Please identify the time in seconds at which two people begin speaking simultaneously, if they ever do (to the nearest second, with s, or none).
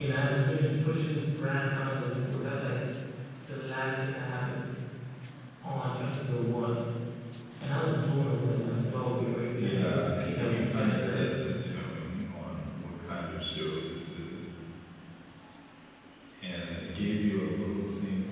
10 s